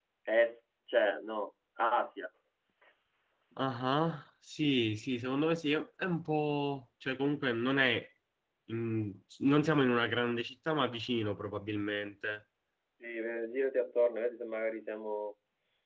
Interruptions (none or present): none